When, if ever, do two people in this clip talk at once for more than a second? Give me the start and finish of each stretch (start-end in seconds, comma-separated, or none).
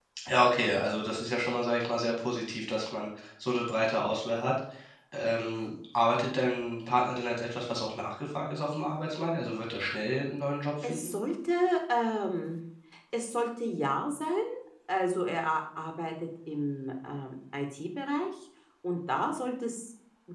none